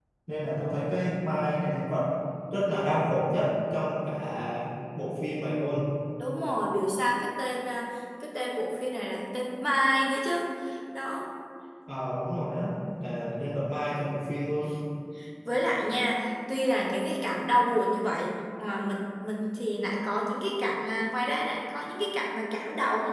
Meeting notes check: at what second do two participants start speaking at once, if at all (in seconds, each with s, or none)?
none